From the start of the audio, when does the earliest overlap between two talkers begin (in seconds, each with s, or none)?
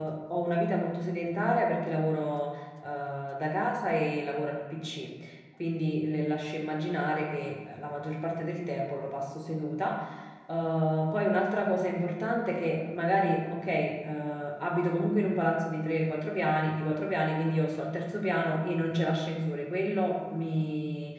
none